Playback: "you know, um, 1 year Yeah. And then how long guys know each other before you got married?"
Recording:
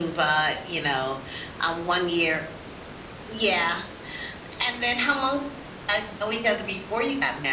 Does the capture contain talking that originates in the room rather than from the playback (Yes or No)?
No